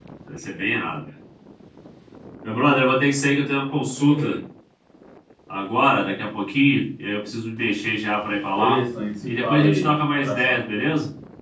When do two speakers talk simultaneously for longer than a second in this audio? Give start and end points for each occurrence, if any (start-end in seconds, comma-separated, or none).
9.3-10.6